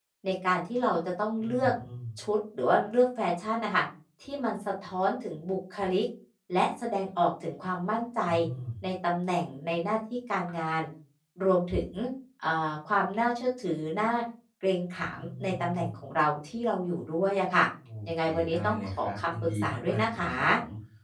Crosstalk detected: Yes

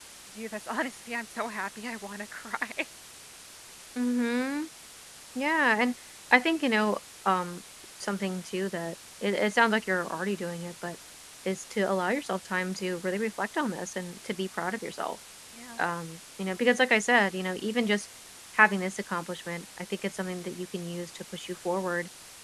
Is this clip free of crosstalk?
Yes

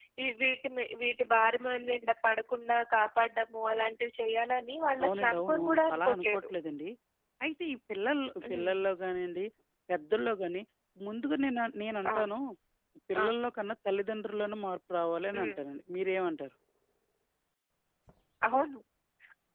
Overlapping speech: Yes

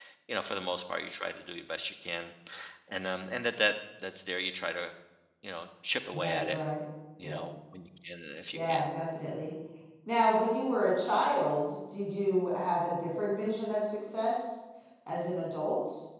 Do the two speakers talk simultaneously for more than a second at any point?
No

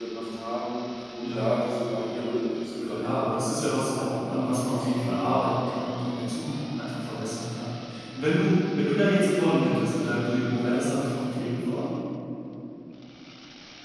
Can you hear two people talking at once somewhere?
Yes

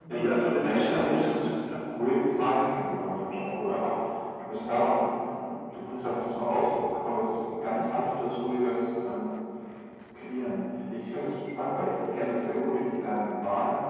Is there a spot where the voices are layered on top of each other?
Yes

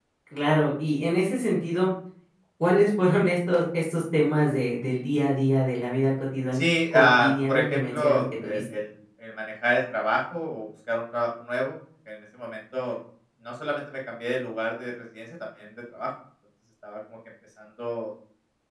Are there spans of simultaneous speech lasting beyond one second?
Yes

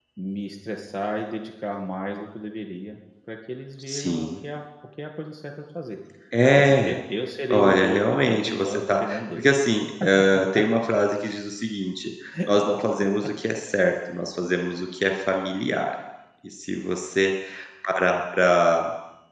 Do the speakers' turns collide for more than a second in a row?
Yes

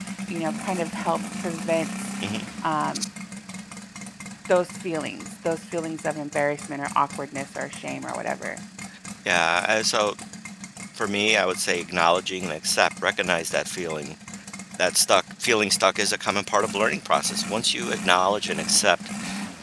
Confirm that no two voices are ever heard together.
Yes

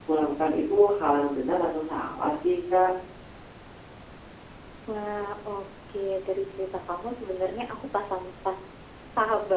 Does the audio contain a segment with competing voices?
No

